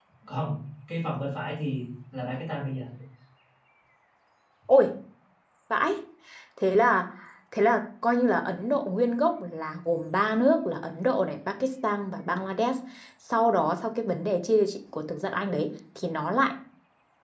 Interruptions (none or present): none